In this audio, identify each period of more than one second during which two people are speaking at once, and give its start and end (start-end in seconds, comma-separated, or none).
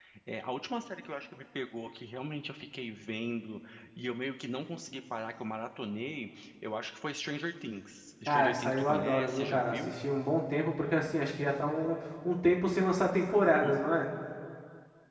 8.3-9.9